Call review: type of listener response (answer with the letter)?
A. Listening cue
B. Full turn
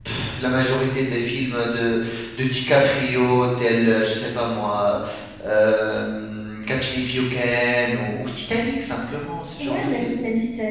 B